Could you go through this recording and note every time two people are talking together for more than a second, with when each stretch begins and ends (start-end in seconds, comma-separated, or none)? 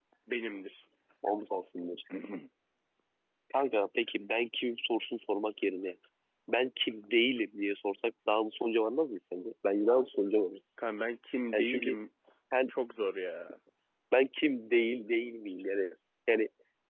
none